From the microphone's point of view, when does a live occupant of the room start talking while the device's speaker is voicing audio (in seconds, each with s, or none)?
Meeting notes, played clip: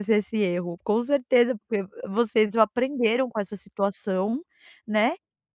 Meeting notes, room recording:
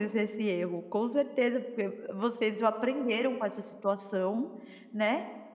none